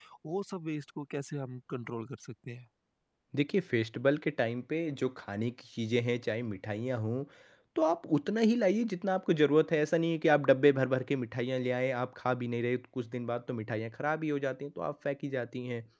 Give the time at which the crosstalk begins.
none

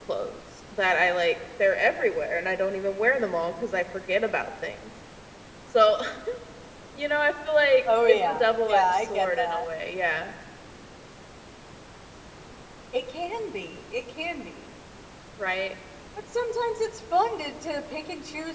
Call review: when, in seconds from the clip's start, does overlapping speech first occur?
7.9 s

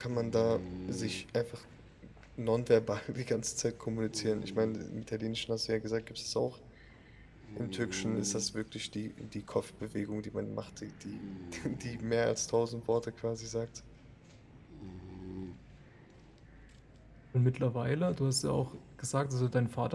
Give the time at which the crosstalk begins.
none

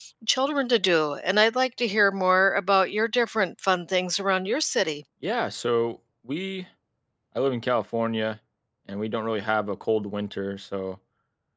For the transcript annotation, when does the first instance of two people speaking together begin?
none

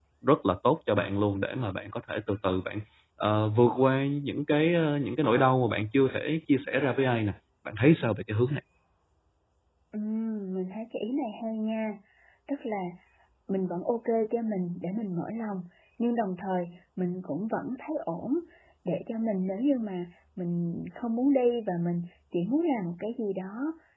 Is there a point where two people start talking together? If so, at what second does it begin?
none

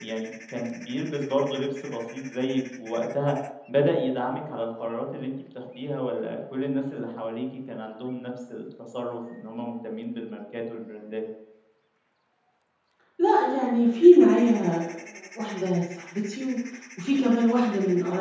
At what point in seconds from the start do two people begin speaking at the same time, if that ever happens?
none

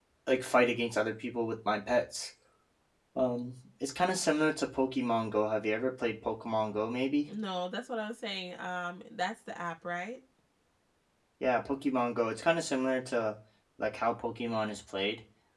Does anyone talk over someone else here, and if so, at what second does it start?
none

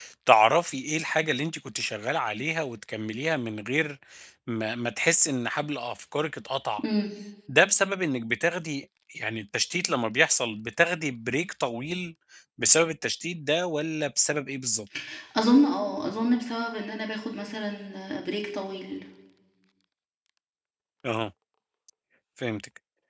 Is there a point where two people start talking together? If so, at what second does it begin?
none

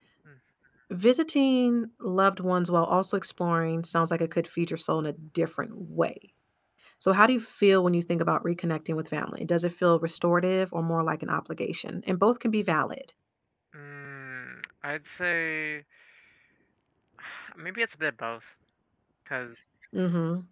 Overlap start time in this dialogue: none

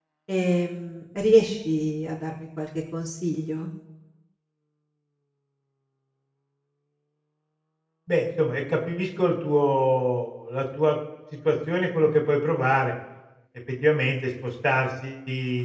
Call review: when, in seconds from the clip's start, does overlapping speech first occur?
none

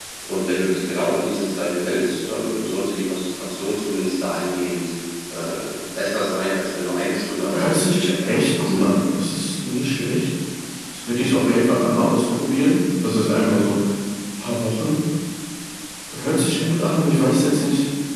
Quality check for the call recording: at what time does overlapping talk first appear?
7.5 s

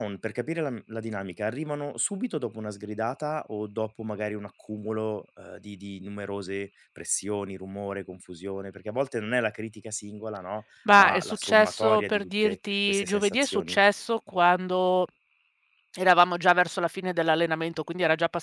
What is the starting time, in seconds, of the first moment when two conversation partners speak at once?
10.9 s

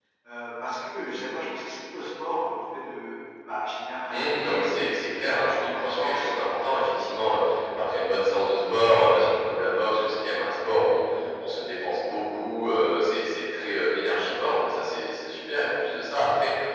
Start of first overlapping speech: 4.1 s

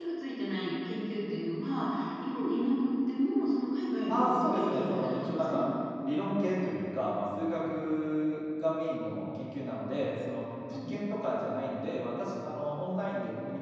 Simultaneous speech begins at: 4.1 s

